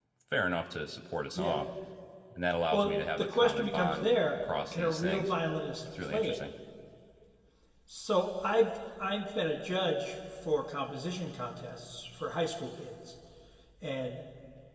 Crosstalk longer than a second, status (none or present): present